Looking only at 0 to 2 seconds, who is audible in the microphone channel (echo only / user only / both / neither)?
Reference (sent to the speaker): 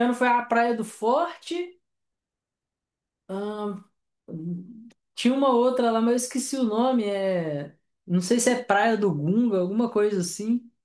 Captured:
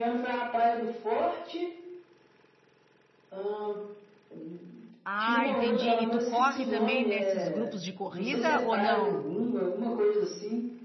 echo only